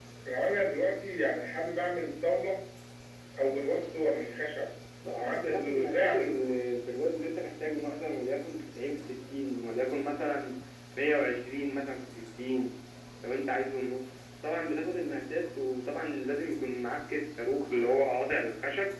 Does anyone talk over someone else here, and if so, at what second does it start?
5.2 s

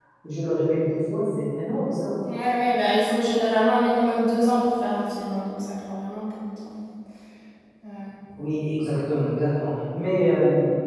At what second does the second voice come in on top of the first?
none

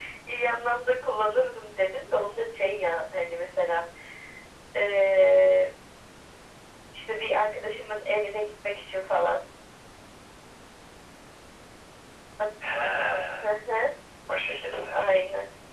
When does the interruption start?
none

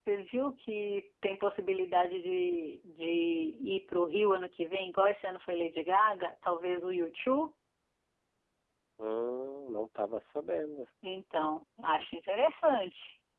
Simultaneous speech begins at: none

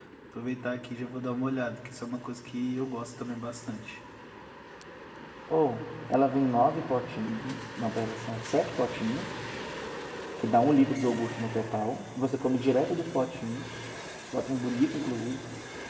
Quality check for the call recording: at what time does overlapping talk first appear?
none

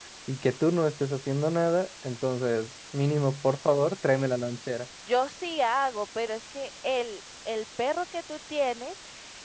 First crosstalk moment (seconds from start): none

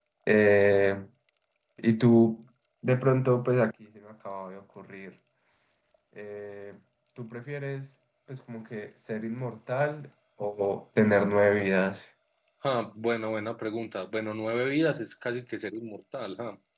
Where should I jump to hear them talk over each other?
none

